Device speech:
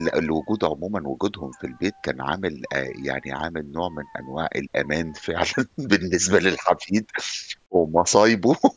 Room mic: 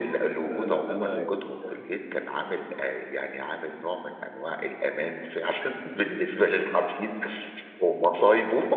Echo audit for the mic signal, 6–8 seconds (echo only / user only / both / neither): echo only